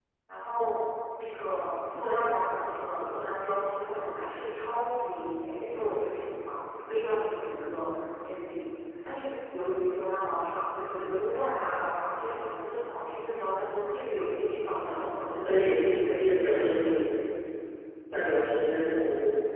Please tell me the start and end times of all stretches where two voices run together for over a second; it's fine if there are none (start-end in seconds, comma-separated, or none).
15.4-16.9